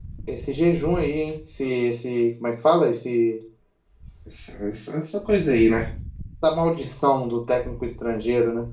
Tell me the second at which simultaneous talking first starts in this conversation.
none

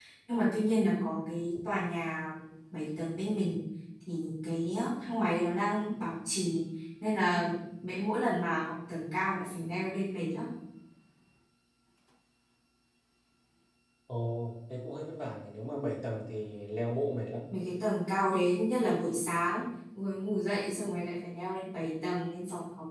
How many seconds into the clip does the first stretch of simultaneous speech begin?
none

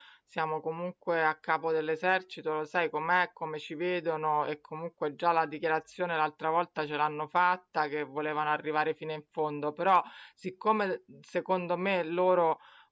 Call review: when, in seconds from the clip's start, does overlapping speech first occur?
none

